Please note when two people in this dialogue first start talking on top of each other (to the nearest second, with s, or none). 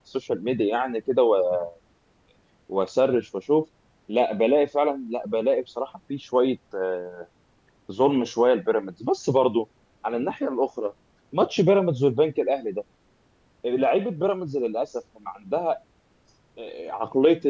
none